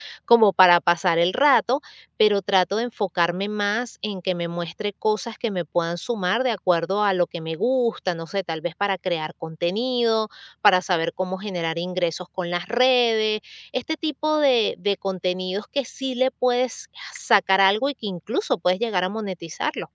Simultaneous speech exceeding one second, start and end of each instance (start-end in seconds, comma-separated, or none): none